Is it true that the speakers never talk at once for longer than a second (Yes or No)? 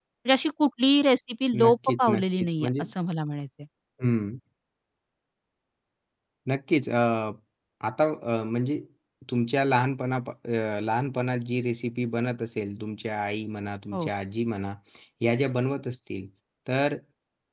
No